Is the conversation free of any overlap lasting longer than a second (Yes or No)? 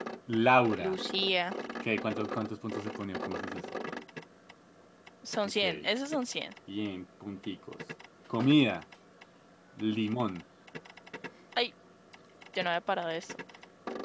Yes